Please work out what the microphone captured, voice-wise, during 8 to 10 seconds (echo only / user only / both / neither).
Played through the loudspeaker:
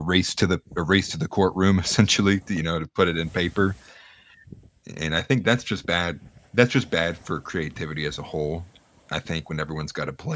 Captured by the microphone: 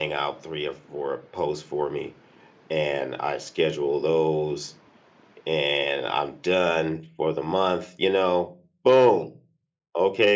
user only